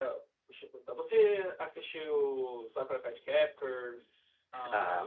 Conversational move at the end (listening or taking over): taking over